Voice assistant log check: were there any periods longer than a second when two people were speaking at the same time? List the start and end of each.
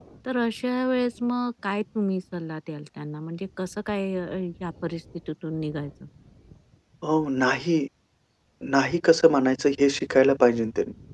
none

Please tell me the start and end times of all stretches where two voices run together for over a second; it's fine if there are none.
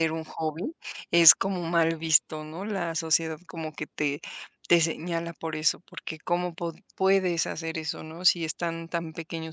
none

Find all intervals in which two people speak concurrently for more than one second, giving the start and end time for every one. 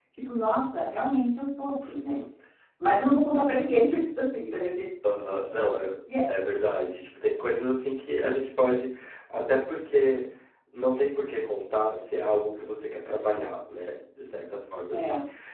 none

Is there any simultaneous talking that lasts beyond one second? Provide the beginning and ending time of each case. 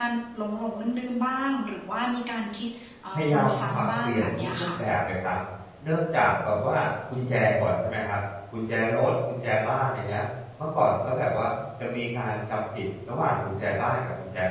3.1-4.7

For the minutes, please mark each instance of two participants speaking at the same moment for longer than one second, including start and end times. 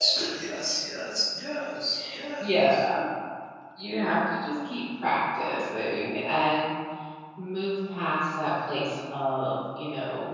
none

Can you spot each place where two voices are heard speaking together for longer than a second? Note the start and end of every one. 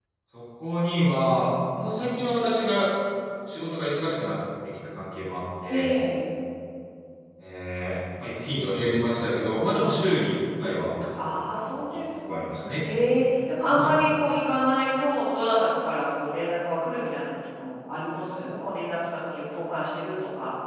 none

